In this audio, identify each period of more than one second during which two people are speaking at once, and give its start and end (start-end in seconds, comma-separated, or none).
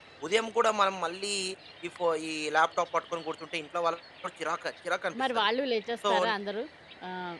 none